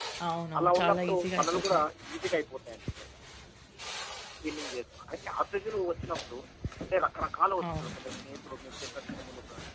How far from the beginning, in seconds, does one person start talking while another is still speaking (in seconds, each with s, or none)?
0.6 s